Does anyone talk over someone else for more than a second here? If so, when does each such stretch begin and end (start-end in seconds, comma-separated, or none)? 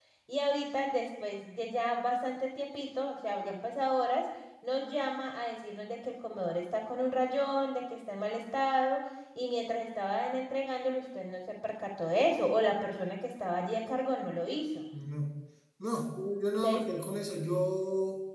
none